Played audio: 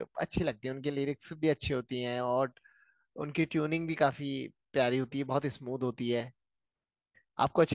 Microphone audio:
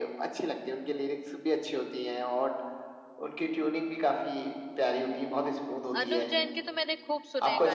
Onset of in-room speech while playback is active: 6.0 s

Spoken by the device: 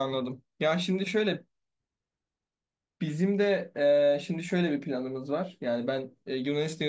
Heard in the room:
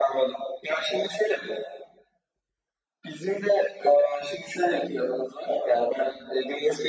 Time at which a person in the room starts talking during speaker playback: none

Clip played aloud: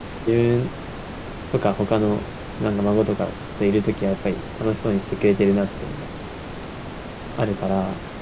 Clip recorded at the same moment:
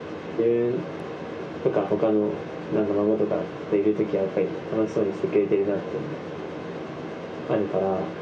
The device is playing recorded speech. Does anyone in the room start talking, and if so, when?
none

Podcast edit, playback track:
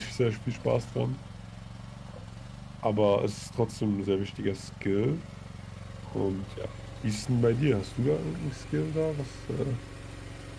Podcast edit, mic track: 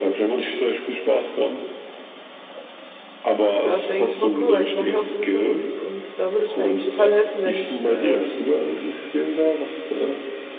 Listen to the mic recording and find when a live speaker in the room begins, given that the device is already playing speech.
3.6 s

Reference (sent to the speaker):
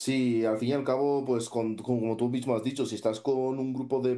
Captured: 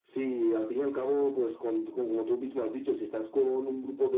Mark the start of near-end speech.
none

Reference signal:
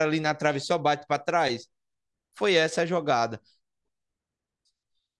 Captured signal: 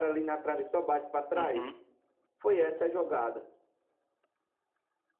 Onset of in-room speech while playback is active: 1.3 s

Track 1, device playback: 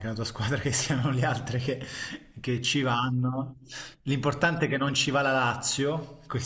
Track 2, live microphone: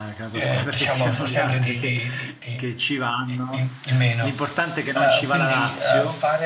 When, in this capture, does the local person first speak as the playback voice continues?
0.3 s

